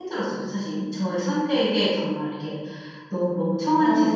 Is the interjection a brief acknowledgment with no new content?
No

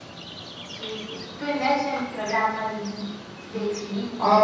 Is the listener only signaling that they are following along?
No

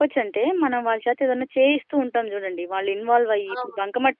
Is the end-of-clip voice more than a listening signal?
No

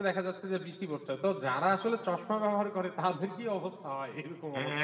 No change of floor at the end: No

